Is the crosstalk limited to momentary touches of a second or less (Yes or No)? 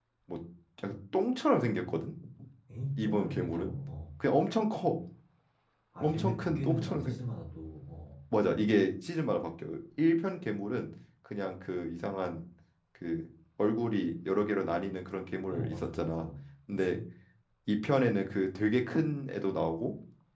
No